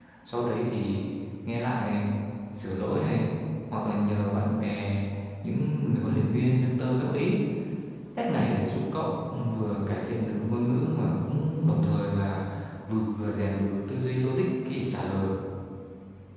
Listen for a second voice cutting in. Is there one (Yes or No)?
No